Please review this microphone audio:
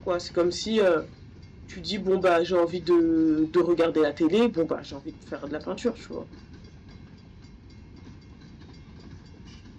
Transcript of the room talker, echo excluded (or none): none